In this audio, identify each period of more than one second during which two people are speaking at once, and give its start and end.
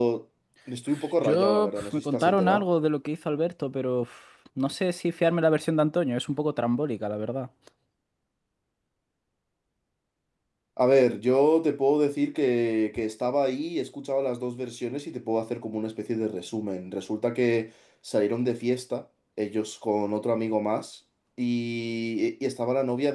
1.2-2.6

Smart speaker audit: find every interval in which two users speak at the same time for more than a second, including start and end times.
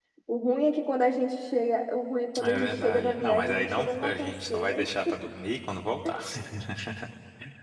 2.4-4.9

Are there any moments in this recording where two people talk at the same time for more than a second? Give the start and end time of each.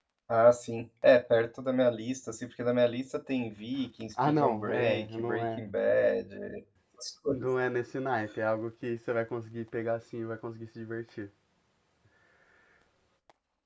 4.2-5.6

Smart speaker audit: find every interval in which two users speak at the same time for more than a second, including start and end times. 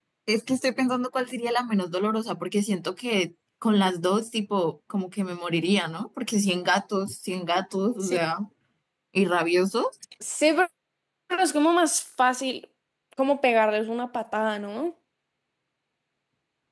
none

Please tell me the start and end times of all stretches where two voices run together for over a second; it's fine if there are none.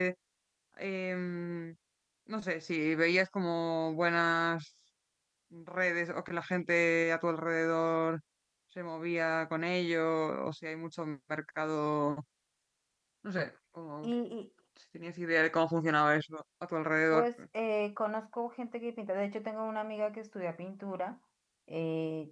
none

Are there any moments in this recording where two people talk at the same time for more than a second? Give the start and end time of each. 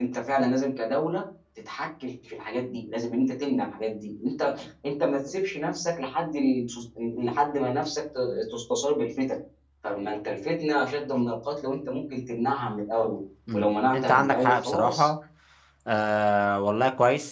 13.5-15.1

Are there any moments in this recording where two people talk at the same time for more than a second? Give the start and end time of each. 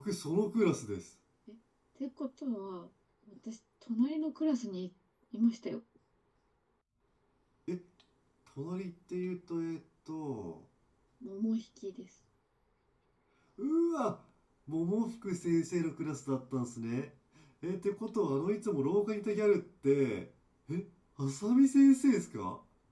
none

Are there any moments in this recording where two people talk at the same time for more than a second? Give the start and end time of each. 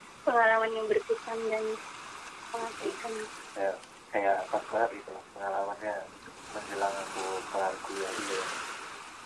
none

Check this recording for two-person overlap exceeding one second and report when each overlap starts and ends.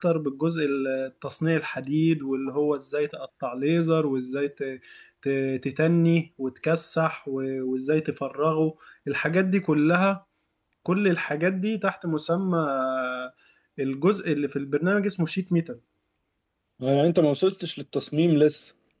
none

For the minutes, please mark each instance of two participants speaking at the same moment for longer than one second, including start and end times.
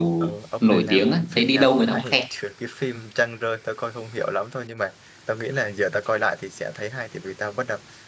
0.6-2.2

